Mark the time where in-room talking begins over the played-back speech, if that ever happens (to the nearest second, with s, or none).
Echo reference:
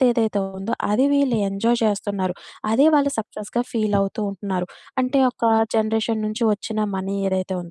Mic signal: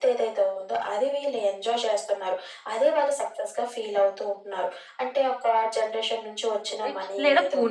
7 s